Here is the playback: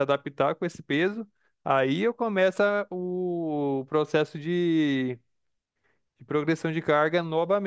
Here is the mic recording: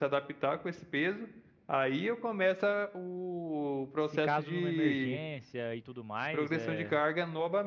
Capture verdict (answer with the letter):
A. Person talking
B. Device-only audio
A